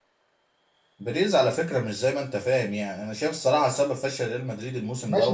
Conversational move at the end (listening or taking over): taking over